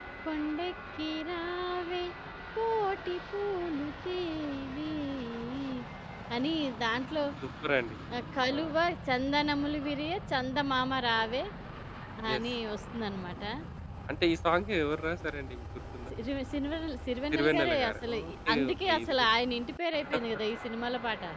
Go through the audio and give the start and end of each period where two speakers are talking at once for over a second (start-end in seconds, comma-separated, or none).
17.3-19.4